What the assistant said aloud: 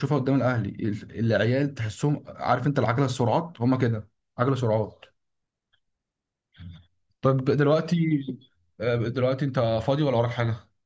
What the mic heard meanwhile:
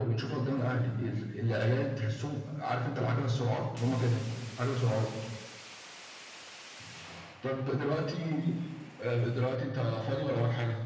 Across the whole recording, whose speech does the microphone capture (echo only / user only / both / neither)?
both